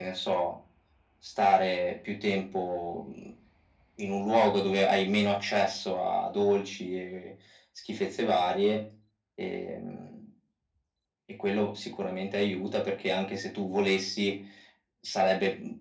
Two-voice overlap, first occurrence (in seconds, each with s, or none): none